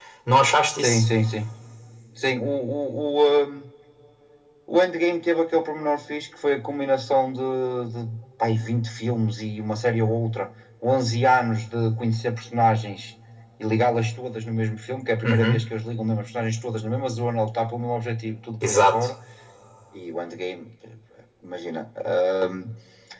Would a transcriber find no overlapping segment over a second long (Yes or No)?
Yes